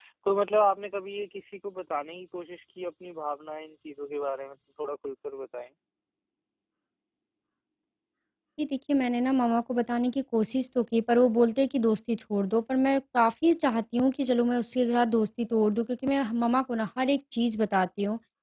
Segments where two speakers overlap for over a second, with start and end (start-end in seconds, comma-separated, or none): none